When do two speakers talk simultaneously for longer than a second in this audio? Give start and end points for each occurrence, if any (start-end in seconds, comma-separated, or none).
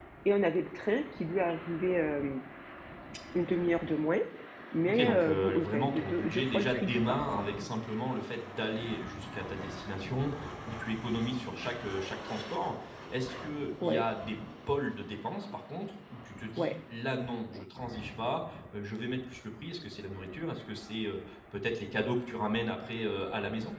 4.9-7.5